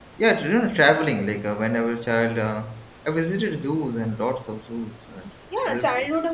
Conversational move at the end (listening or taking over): taking over